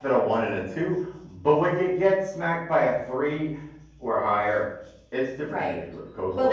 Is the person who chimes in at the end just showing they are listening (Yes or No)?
No